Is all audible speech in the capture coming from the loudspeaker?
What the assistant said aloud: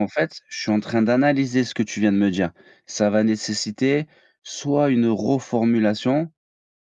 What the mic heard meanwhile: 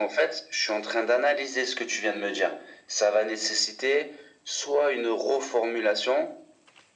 Yes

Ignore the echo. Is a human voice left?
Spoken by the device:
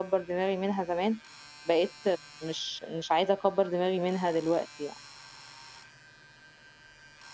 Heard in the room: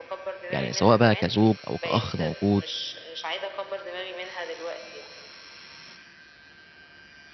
Yes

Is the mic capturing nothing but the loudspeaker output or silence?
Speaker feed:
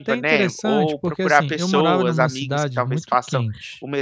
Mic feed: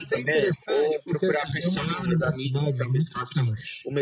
Yes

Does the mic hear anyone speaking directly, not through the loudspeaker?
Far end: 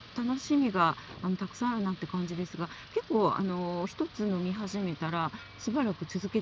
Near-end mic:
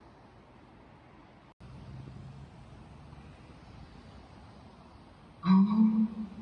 Yes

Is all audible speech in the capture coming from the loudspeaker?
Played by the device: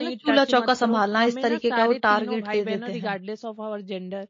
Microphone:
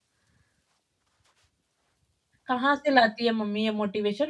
No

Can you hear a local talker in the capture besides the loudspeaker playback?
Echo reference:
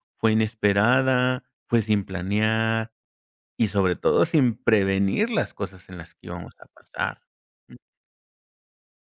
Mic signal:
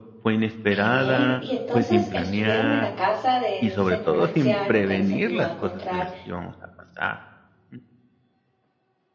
Yes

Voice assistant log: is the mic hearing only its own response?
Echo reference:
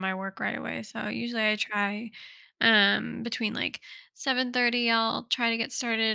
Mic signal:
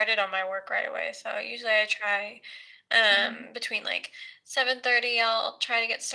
No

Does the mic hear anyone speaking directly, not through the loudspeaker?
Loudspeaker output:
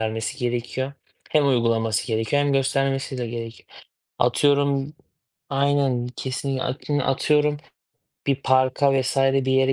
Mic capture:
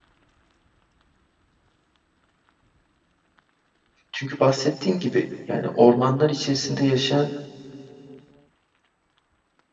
Yes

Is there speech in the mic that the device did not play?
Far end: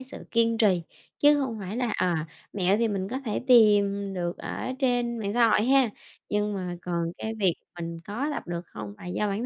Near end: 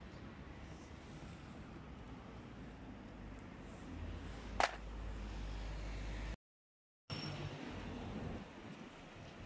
No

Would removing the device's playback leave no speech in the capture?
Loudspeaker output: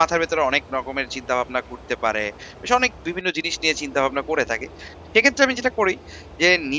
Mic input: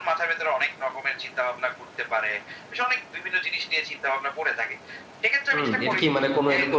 No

